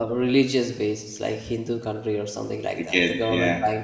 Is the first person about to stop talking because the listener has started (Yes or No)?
No